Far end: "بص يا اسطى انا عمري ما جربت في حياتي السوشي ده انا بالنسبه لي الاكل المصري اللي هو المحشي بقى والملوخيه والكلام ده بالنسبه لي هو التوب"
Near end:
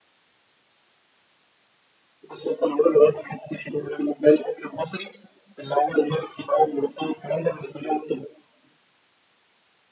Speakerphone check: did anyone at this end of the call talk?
No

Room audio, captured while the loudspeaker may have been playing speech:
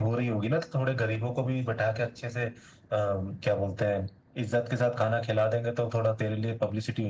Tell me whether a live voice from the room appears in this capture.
No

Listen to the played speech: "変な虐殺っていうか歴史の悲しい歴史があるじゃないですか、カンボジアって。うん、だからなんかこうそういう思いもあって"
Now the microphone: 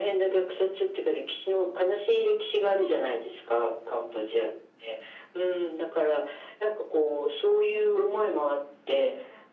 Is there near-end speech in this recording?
No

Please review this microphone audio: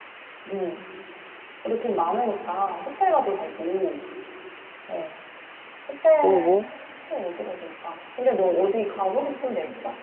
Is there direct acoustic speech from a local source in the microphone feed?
Yes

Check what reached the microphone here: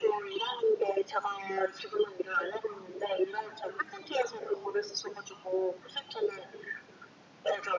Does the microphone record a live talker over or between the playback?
No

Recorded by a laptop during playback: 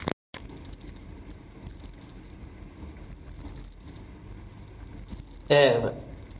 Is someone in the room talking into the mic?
Yes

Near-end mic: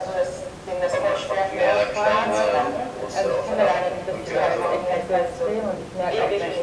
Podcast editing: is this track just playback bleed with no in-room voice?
No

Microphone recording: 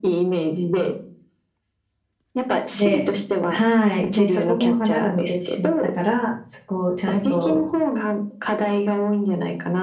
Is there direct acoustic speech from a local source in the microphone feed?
Yes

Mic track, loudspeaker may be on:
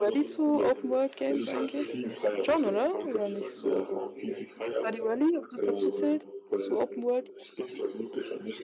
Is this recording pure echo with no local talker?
No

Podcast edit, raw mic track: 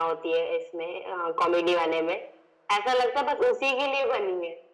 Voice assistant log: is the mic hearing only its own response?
Yes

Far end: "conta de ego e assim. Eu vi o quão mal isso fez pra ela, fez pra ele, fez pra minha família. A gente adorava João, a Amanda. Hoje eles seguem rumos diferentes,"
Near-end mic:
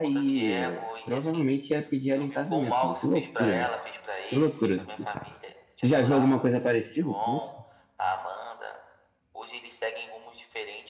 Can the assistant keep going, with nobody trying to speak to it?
No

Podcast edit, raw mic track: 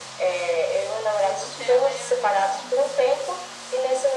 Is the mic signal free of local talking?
No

